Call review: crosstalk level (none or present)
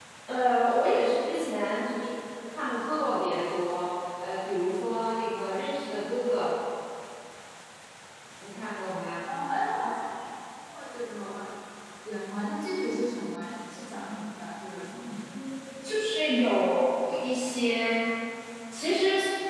none